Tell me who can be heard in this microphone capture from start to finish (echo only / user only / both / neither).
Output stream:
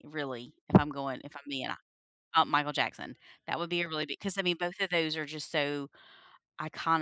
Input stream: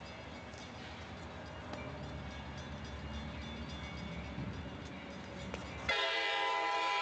neither